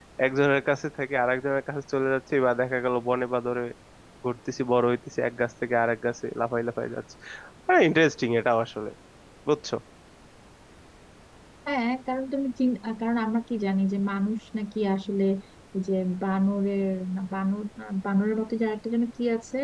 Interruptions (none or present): none